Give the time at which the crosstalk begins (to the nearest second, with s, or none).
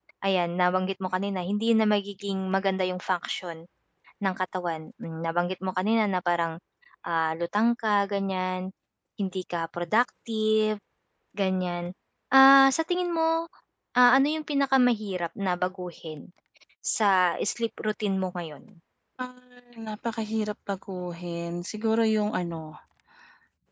none